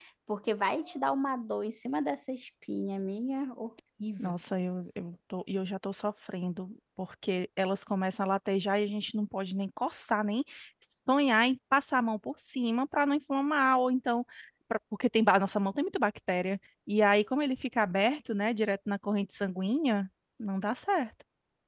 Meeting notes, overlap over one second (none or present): none